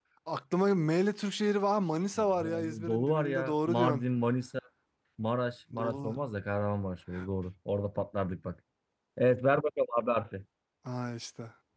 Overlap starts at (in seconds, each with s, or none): 2.2 s